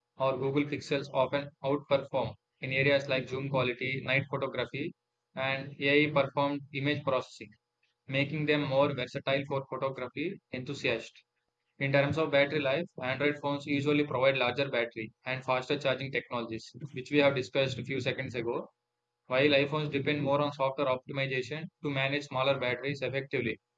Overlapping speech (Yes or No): No